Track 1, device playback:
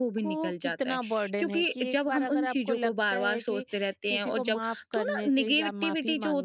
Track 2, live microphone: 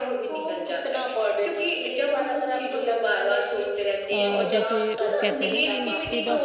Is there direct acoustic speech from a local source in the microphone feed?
Yes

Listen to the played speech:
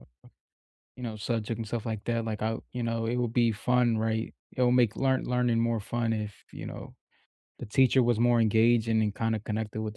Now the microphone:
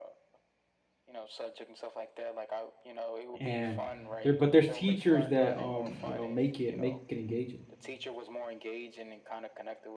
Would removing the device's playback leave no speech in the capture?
No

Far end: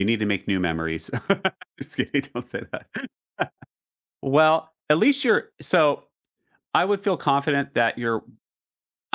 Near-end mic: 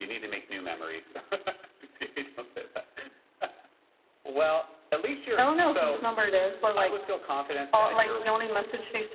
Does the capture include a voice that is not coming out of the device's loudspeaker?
Yes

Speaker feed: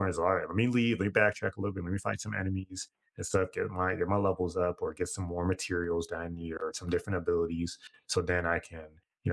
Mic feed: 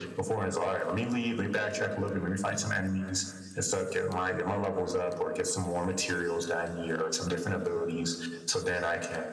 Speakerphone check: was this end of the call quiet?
Yes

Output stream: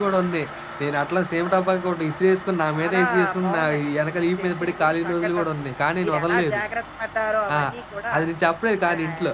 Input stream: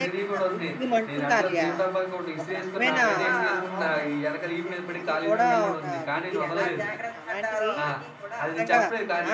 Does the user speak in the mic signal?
Yes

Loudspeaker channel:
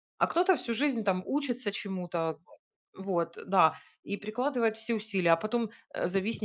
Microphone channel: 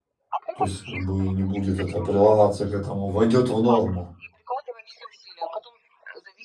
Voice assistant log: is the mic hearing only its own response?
No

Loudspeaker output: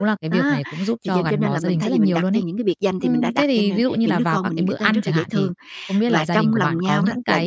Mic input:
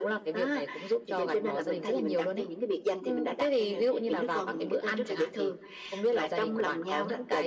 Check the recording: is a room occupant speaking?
No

